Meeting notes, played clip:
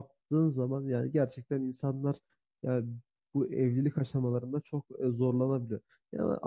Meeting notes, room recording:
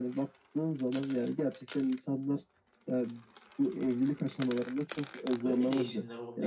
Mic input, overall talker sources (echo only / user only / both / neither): both